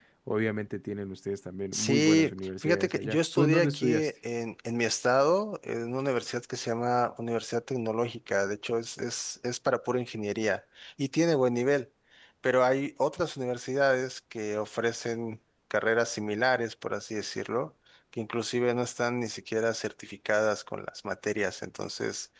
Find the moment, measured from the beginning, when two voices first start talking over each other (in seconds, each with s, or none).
1.7 s